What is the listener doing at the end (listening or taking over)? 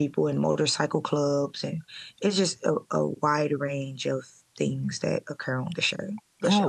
taking over